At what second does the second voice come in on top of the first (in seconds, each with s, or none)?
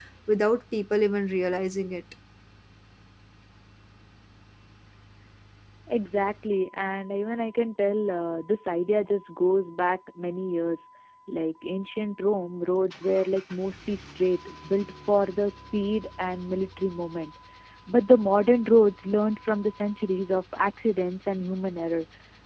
none